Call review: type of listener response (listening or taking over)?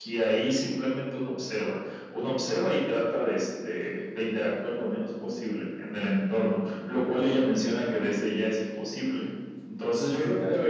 listening